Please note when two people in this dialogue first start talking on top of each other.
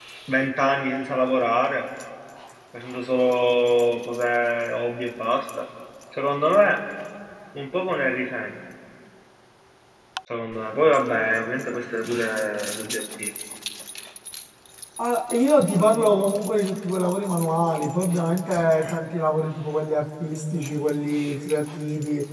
none

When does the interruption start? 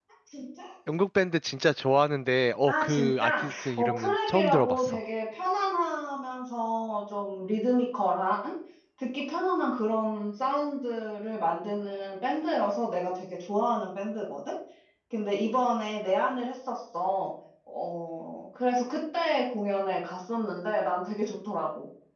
2.7 s

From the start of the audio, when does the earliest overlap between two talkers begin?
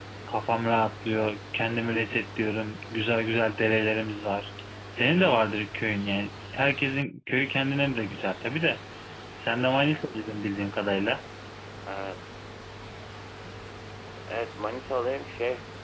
none

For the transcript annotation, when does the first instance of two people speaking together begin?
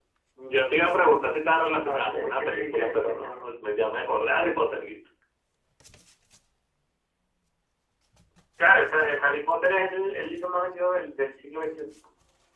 1.9 s

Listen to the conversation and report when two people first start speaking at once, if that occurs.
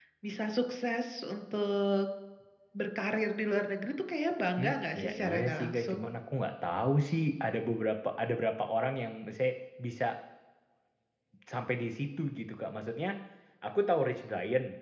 4.6 s

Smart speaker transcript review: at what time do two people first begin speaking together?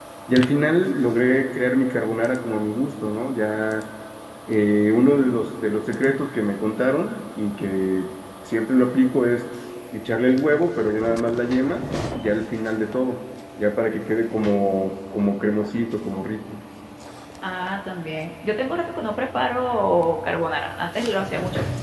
none

